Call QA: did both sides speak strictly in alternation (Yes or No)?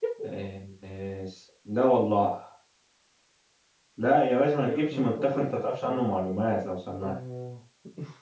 No